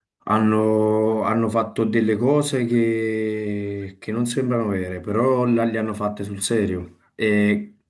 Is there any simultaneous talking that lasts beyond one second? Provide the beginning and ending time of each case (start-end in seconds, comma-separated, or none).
none